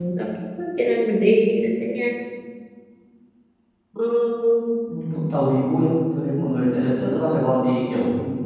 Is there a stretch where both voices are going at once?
No

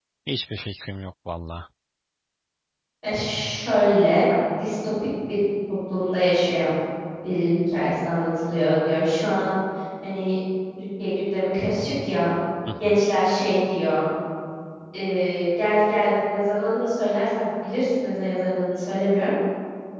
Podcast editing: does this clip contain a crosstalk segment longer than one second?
No

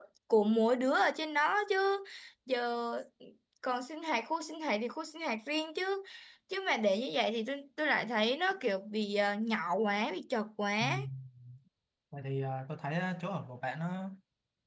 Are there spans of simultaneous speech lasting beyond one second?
No

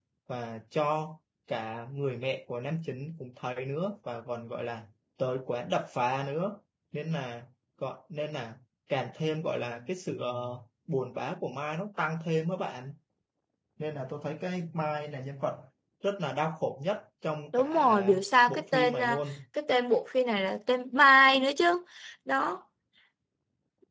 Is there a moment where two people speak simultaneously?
Yes, from 17.5 s

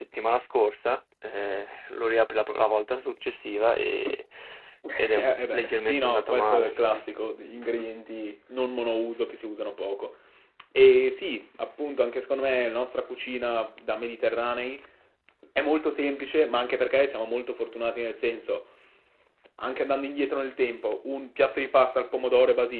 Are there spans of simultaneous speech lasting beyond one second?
Yes, from 5.2 s

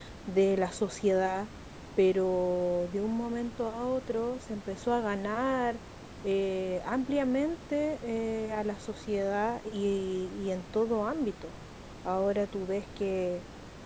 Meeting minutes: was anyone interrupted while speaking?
No

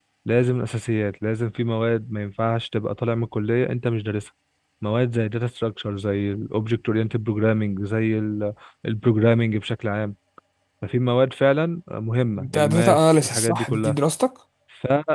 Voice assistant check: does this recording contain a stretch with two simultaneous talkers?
Yes, from 12.4 s

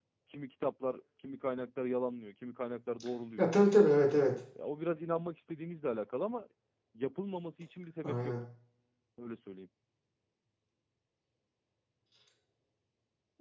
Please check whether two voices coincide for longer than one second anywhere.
No

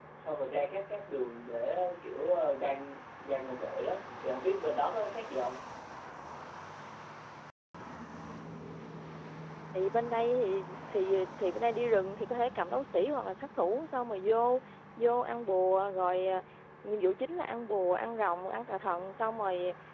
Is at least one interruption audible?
No

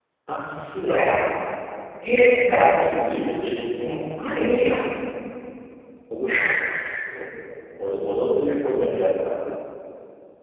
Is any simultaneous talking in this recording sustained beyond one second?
No

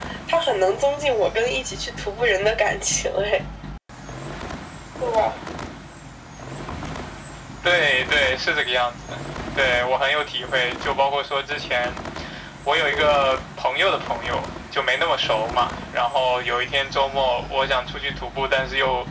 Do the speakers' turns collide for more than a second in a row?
No

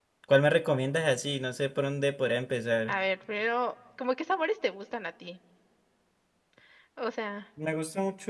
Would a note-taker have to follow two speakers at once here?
No

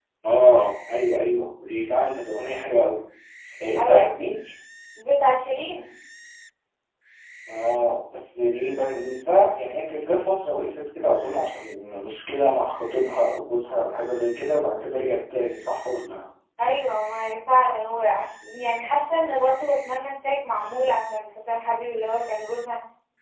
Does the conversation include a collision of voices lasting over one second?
No

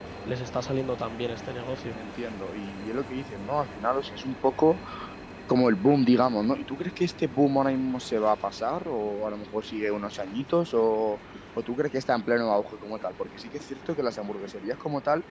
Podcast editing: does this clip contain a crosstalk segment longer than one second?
No

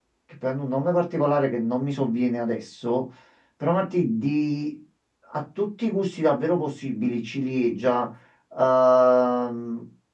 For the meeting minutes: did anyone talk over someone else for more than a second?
No

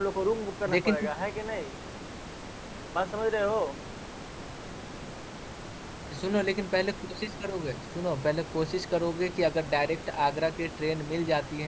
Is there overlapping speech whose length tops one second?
No

